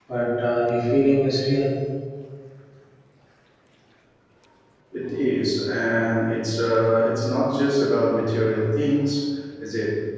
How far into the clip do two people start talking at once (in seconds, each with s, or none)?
none